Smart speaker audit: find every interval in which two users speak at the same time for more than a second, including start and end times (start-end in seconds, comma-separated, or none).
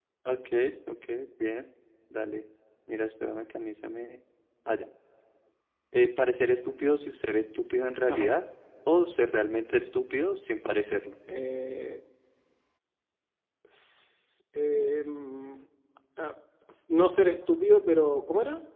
none